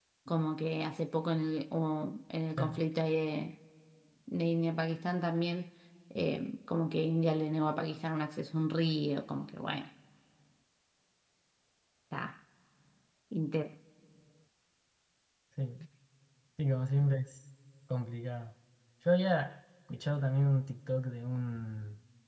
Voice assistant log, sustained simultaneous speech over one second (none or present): none